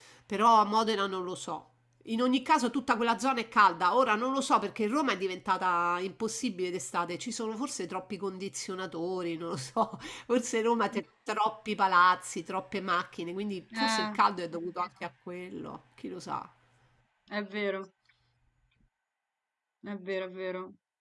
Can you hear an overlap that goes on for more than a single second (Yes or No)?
No